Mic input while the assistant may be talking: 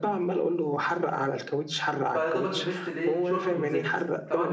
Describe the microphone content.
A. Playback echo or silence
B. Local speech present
B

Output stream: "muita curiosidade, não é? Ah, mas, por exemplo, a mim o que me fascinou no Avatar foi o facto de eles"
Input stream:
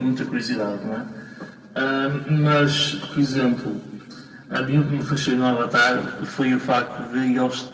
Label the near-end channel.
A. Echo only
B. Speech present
A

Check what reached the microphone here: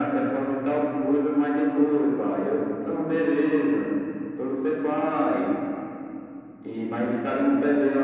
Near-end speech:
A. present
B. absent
B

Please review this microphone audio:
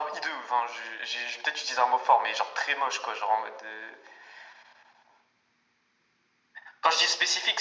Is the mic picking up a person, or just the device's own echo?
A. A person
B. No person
B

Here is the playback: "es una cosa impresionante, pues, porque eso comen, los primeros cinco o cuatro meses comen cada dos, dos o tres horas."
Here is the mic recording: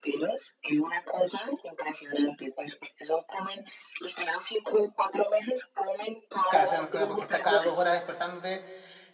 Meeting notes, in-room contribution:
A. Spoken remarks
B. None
A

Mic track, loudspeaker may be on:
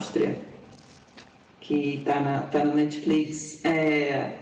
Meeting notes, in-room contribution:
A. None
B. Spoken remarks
A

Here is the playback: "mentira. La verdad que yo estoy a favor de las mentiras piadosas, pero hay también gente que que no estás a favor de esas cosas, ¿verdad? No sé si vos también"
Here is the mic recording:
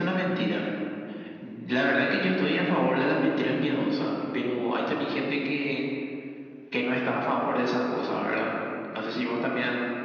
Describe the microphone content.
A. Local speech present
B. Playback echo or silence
B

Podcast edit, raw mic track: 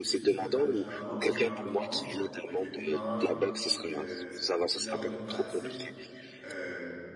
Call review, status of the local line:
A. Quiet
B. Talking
B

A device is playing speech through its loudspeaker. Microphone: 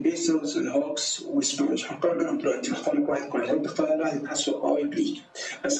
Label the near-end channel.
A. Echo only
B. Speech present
A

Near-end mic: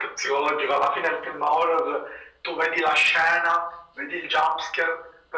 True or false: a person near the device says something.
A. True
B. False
B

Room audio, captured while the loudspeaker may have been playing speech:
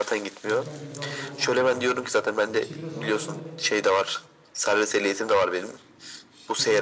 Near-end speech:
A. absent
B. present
B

